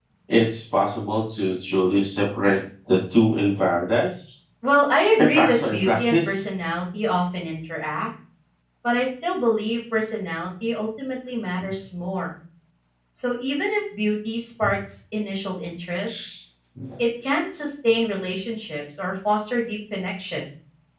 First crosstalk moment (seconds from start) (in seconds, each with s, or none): 5.2 s